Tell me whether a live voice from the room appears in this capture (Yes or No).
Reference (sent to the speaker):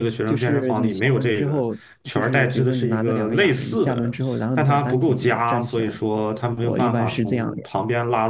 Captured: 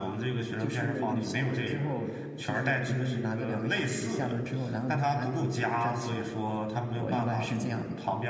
No